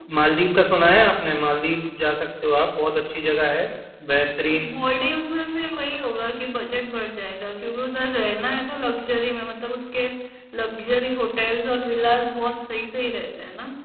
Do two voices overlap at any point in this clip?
No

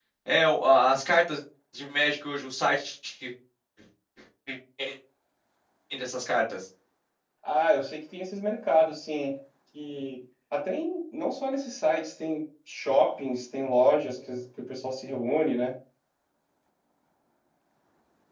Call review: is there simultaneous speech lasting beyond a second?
No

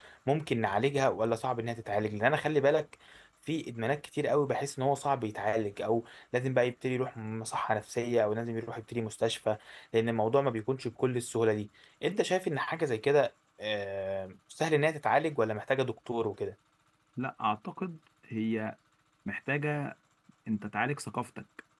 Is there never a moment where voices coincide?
Yes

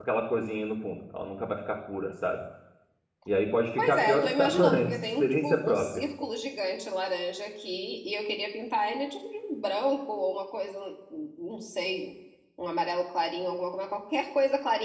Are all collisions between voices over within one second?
No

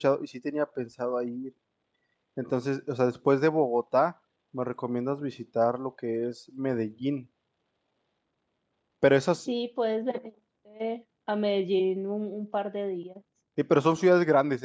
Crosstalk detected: No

